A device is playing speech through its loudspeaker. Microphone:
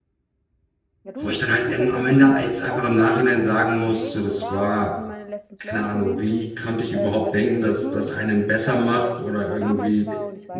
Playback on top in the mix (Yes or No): No